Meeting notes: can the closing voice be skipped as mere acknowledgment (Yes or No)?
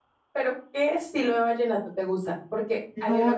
Yes